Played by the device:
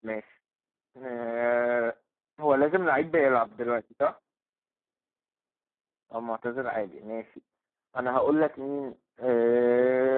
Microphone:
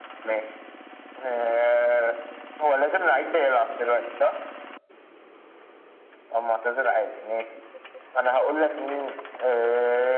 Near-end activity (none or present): none